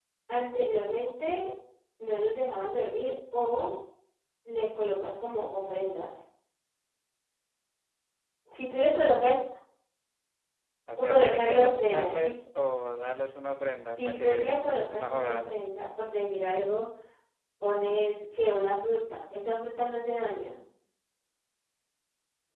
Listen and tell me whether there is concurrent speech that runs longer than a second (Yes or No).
Yes